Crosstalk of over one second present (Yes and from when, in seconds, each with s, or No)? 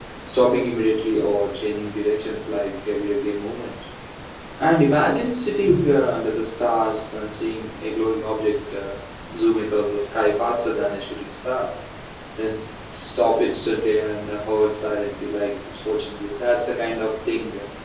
No